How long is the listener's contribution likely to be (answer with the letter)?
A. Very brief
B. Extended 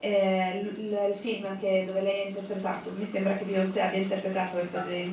A